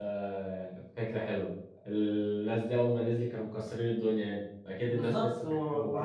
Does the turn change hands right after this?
Yes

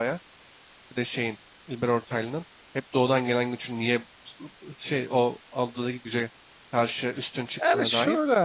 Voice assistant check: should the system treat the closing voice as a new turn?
Yes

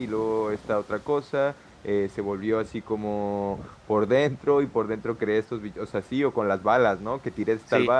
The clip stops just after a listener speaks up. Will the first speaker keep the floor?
Yes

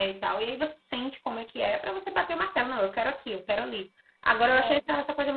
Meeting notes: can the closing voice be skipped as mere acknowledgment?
Yes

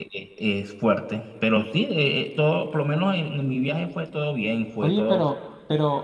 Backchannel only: No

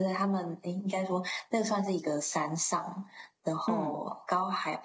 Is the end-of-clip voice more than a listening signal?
No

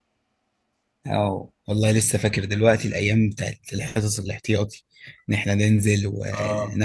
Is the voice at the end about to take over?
Yes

